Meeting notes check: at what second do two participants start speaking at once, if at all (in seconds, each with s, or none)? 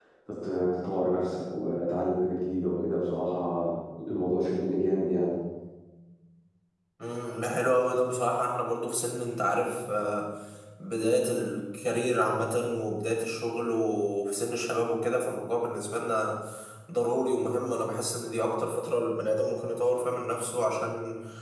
none